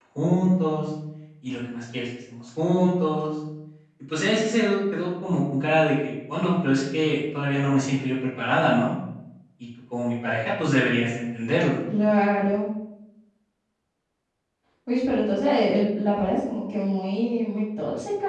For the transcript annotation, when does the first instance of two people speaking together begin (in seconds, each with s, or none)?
none